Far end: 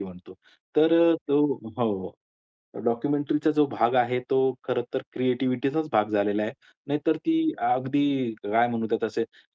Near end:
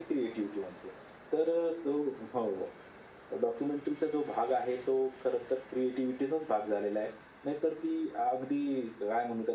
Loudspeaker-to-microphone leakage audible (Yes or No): Yes